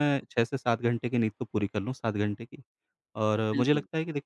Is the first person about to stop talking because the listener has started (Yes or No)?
No